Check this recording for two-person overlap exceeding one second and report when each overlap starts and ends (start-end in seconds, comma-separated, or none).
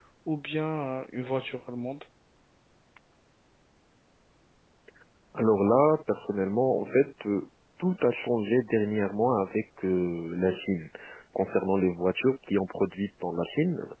none